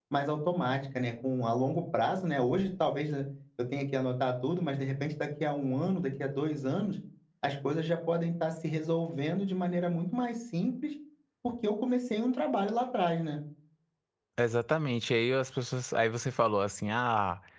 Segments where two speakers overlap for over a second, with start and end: none

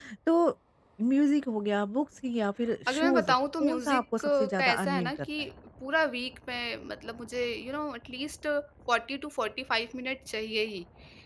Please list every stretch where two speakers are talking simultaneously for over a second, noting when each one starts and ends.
2.9-5.4

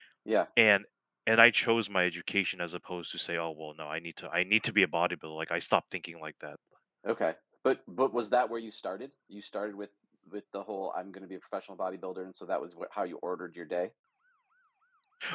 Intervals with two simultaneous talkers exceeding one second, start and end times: none

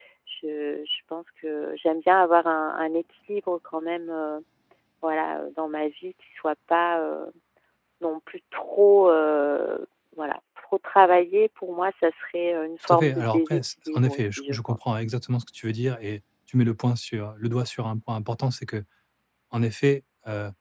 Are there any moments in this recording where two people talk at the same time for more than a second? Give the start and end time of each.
12.9-14.8

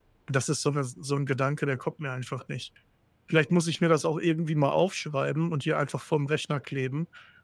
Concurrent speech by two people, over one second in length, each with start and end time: none

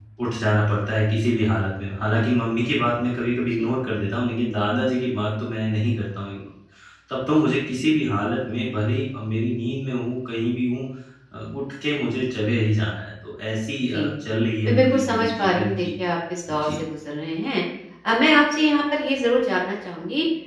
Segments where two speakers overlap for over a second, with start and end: 14.7-15.9

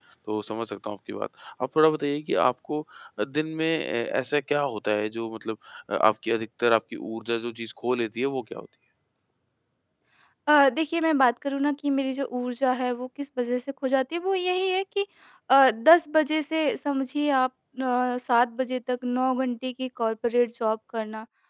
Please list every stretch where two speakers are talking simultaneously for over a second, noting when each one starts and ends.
none

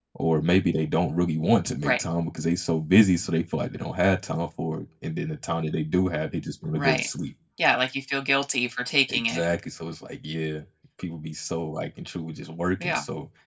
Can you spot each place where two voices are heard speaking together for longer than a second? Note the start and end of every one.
none

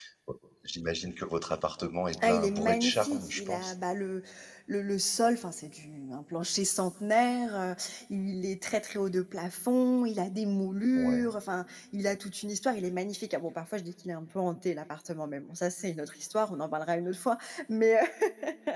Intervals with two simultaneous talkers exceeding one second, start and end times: 2.2-3.7

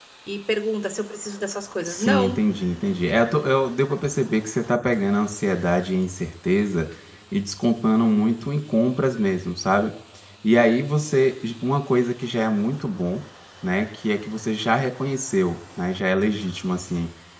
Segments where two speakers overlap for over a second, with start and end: none

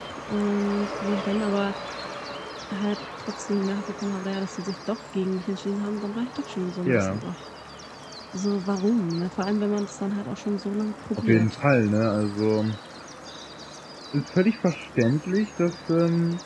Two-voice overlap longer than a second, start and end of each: none

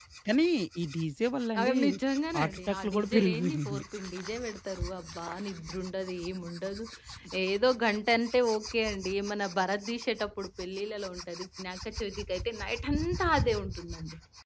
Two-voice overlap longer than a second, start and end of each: 2.4-3.8

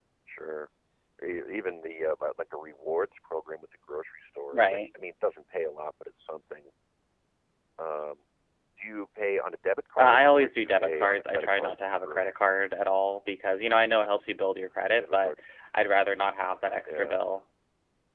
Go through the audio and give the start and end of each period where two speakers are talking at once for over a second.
10.0-12.3

